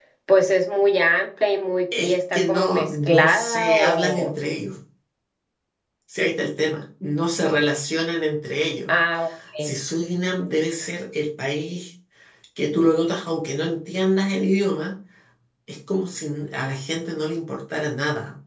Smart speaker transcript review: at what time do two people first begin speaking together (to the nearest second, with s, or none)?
2 s